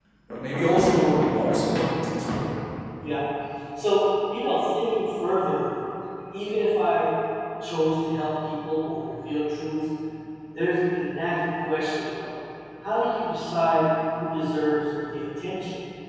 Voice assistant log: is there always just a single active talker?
Yes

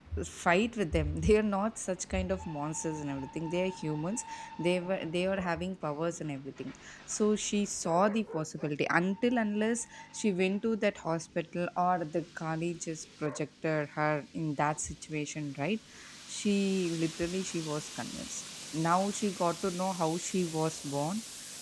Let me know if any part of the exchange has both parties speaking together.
No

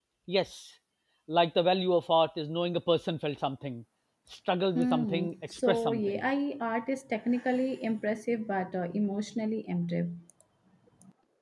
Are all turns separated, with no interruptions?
No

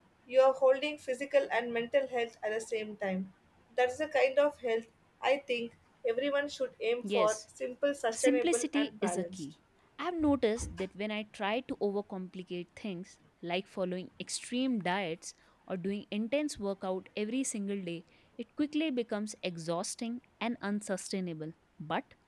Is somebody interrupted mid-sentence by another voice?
Yes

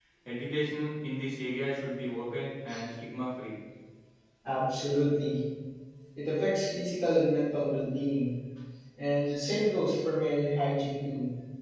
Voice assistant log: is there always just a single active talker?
Yes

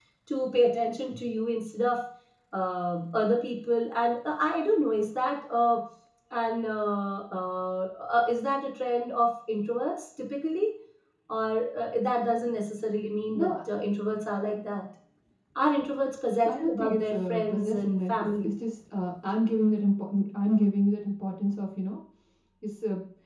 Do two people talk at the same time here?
Yes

